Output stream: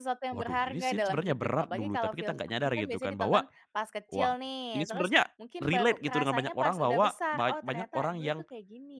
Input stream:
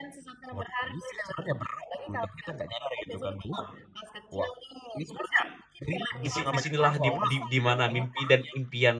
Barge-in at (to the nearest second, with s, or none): 6 s